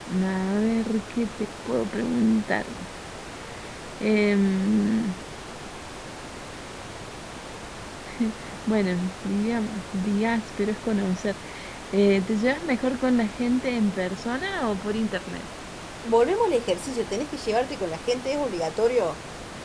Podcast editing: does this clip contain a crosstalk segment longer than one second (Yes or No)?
No